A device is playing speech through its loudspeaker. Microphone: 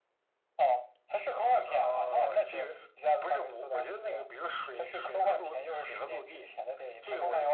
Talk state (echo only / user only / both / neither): echo only